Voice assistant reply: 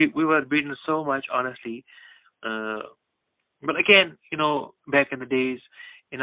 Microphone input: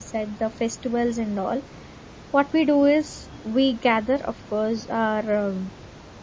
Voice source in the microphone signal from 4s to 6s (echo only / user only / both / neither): user only